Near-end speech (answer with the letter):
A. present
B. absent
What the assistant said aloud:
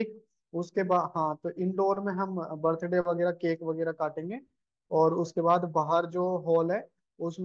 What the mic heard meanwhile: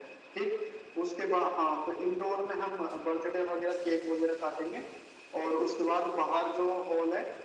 B